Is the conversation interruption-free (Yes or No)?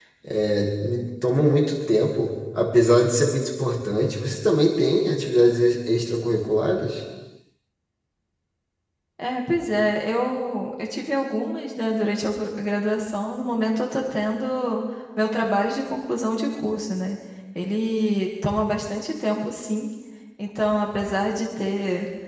Yes